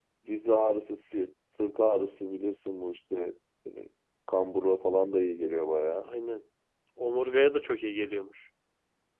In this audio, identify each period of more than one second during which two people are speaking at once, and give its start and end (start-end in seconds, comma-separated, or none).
none